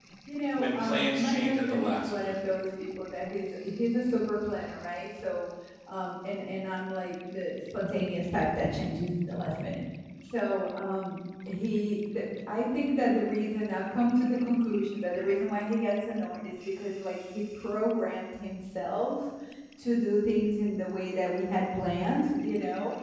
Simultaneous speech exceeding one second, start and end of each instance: 0.6-2.3

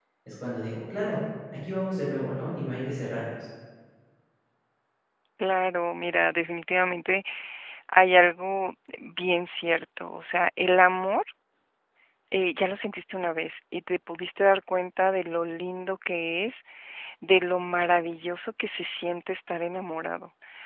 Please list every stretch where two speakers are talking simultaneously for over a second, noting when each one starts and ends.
none

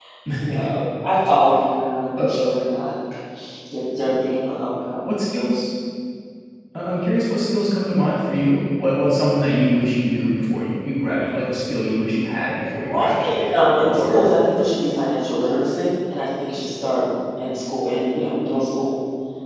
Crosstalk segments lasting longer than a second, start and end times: 12.9-14.3

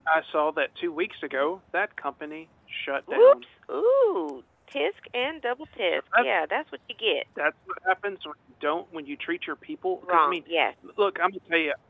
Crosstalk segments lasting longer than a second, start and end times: none

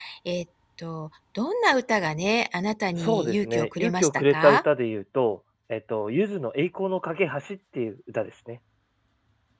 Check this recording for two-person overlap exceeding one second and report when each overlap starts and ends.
2.9-4.6

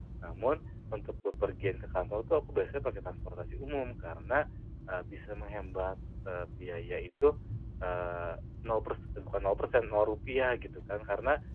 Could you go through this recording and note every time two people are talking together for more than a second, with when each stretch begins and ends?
none

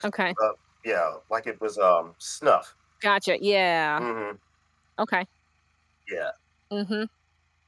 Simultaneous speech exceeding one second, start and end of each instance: none

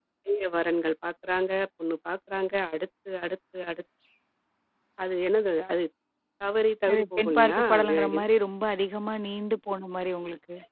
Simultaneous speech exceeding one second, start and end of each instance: 6.9-8.2

